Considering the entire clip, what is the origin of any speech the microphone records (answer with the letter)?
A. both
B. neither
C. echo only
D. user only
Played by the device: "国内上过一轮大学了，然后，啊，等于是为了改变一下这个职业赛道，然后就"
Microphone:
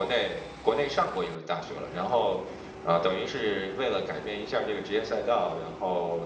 C